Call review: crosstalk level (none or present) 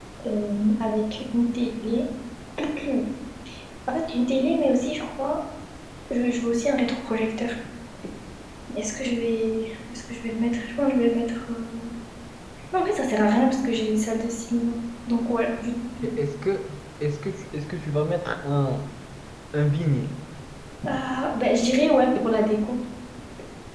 none